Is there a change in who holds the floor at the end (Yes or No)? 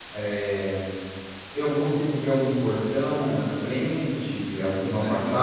Yes